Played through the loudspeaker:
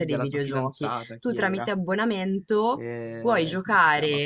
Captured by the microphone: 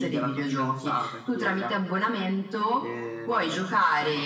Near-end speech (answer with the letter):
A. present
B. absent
B